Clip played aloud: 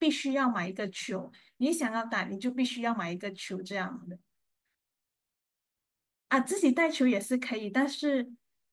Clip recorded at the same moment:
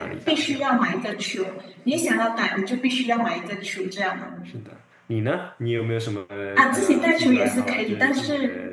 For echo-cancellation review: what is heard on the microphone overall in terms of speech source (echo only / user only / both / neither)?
both